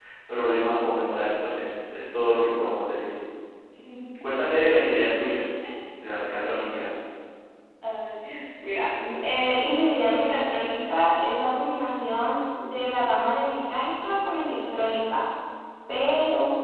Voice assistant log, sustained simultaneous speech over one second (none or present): none